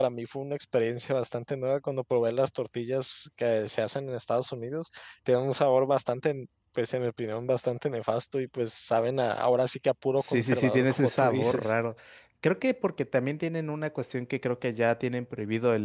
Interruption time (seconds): 10.2 s

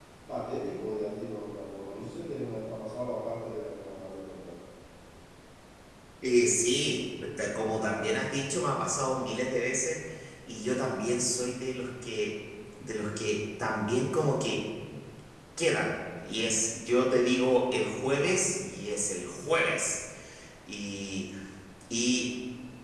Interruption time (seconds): none

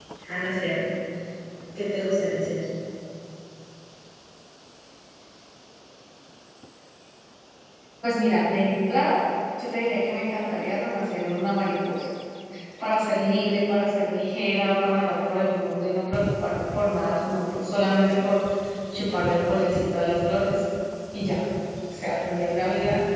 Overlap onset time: none

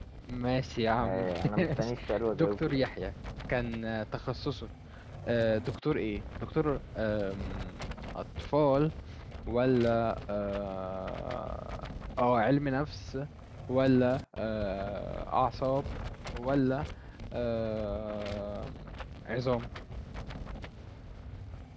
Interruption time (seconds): 1.0 s

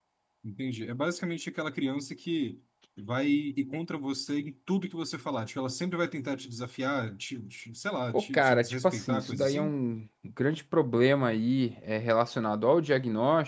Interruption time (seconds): 8.1 s

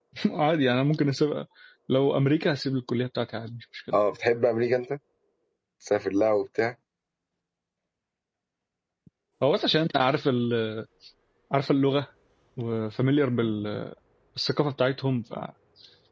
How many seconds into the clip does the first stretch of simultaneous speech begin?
none

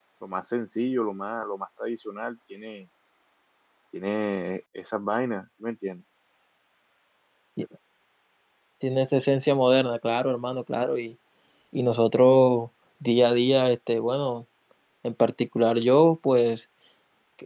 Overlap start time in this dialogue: none

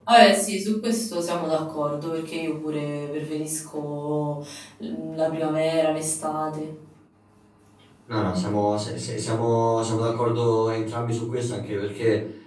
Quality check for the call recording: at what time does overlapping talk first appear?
none

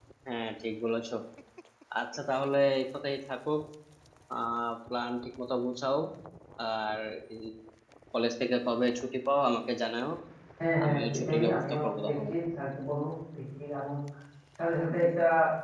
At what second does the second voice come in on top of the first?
10.8 s

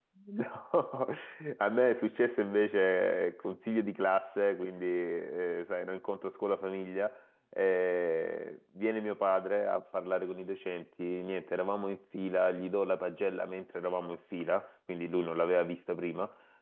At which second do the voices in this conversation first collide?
none

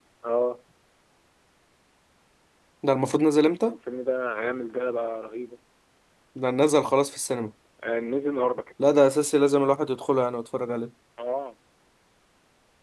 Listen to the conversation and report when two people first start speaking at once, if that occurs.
none

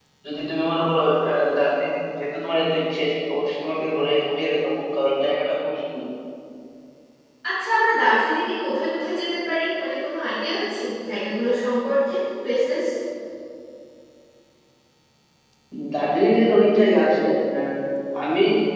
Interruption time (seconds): none

